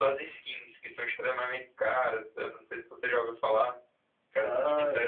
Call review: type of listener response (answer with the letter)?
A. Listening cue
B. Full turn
A